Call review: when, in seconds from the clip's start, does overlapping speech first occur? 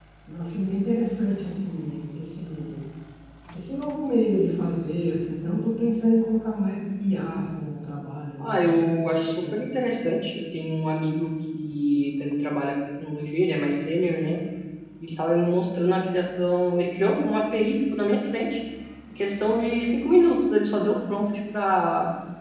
8 s

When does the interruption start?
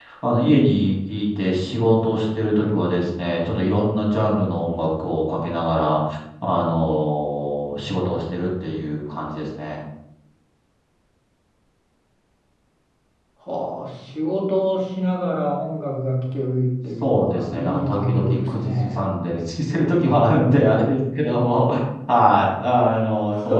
17 s

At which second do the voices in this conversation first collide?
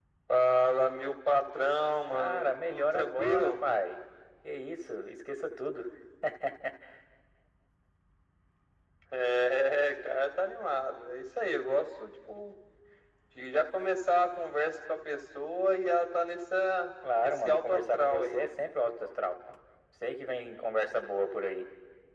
2 s

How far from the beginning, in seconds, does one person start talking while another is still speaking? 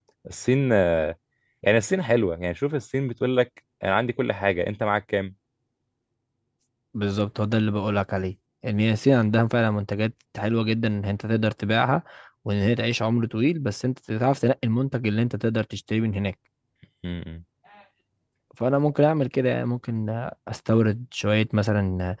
none

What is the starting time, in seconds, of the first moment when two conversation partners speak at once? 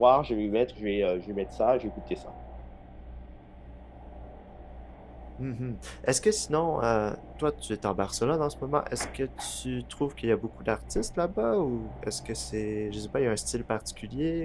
none

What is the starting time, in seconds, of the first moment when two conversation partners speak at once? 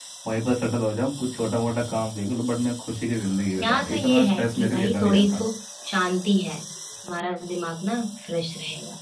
3 s

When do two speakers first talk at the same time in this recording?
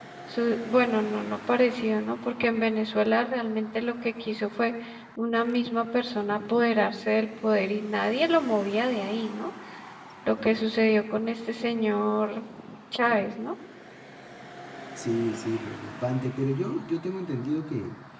none

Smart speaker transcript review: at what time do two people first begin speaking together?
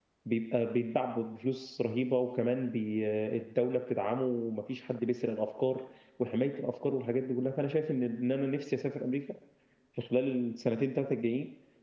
none

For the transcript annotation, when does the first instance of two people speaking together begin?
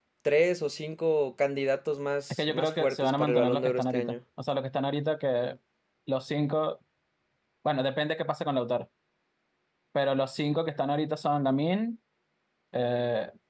2 s

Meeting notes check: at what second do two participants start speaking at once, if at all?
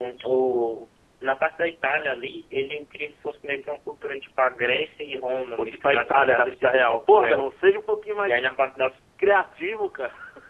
6 s

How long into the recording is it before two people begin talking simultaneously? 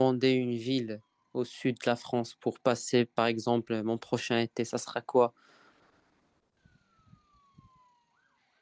none

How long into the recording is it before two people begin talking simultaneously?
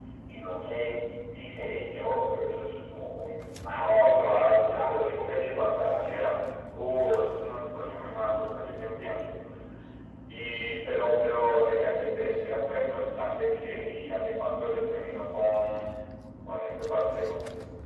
4 s

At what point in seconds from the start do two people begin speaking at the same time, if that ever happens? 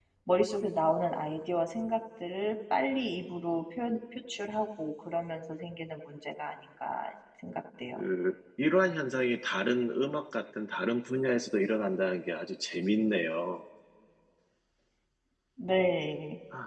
none

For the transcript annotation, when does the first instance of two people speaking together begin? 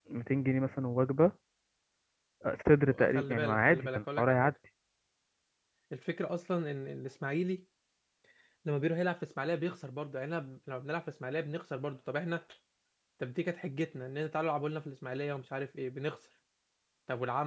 3 s

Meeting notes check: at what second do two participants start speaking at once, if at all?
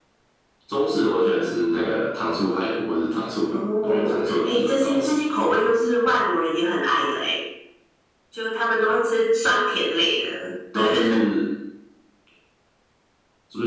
4 s

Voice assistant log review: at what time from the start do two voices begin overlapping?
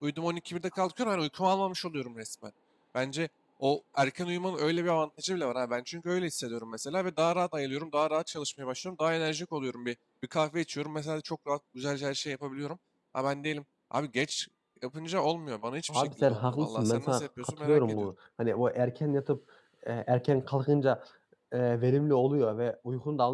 16 s

